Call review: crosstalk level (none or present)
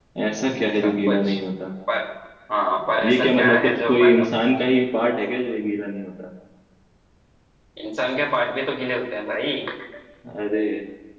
present